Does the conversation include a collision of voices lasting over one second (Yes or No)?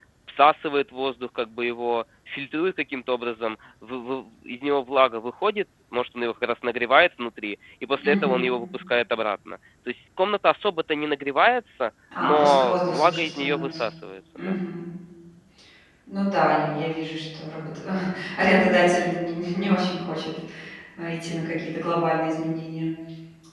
Yes